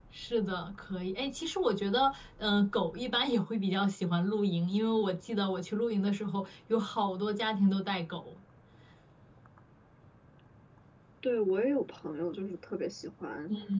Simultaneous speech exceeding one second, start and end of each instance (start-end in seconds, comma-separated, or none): none